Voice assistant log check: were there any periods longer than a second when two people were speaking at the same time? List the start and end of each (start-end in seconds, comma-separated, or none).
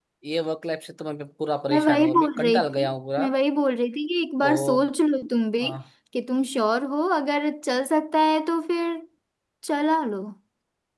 1.7-3.3